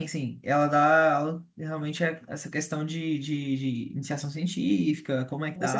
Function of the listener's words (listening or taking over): taking over